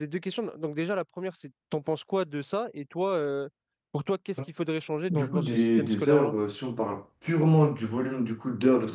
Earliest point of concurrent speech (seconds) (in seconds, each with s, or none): 5.1 s